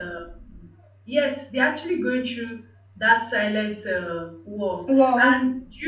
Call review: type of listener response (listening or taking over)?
listening